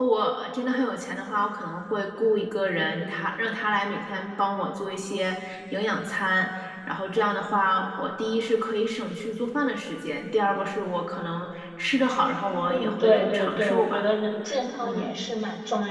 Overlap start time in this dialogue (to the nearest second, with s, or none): 13 s